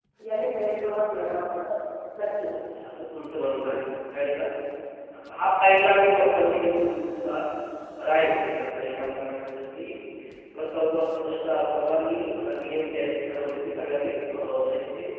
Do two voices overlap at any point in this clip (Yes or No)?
No